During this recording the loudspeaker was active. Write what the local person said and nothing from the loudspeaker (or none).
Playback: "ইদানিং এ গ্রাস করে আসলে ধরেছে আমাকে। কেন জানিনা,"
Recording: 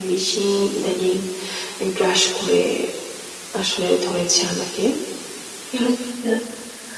none